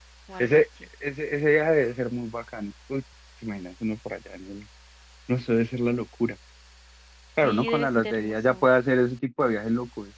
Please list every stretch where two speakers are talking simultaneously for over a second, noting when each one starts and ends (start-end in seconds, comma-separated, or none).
7.4-8.6